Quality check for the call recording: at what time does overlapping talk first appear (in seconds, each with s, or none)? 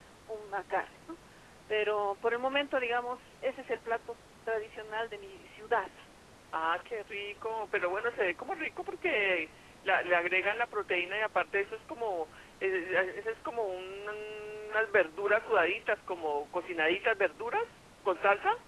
none